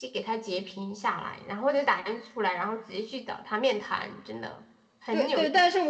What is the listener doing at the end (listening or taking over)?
taking over